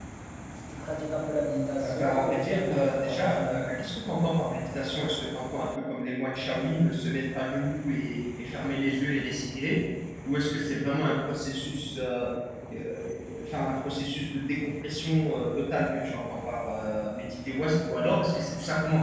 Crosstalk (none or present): present